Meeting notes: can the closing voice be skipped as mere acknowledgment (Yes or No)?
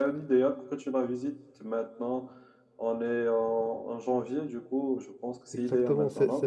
No